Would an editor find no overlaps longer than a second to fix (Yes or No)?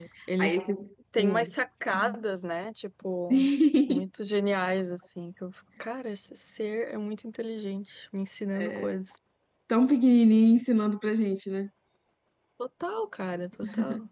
Yes